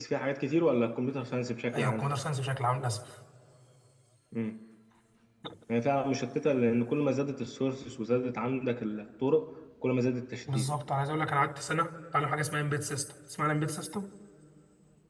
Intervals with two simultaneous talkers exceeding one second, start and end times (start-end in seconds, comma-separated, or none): none